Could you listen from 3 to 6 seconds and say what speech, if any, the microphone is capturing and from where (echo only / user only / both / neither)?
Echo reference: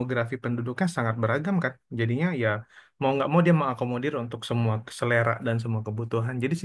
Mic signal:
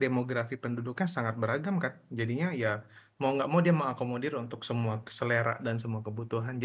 echo only